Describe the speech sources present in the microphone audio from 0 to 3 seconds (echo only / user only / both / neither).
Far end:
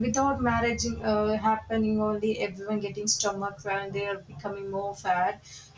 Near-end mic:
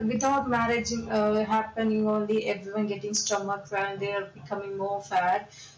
echo only